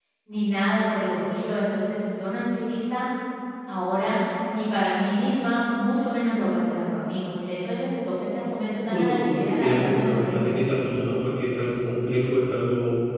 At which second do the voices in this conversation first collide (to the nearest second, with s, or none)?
9 s